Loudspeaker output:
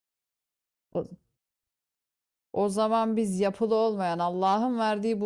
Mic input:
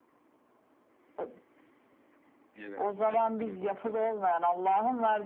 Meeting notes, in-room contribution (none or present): present